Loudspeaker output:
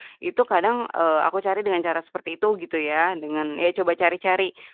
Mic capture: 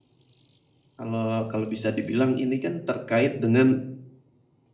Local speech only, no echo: kalau kalau bisa dibilang ini kan terkait dengan

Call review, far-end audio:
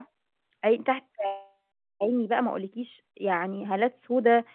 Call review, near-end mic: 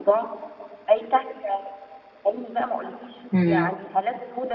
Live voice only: امم.

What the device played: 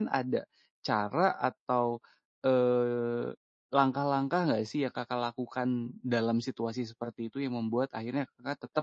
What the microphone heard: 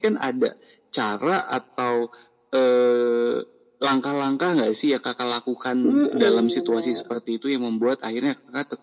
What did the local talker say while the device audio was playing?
Mhm, bener.

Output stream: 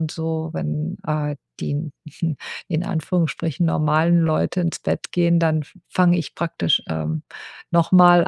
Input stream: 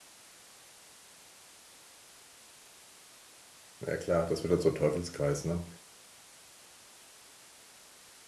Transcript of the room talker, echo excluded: Ja, klar, das wird dann zum Teufelskreis, ne?

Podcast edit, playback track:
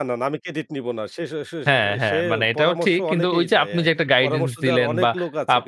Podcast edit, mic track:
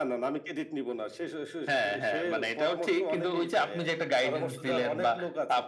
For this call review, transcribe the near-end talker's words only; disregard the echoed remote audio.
none

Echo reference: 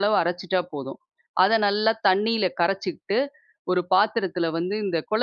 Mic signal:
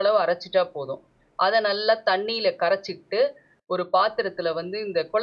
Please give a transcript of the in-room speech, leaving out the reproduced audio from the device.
none

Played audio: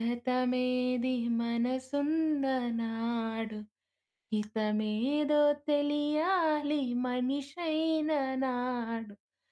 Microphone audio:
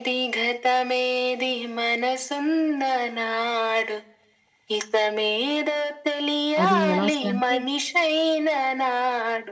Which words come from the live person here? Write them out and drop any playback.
అది ఎలా వస్తదంటే

